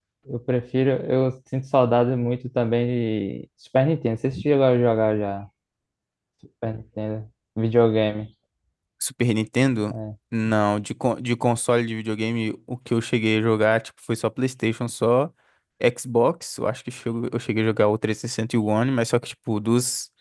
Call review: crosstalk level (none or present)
none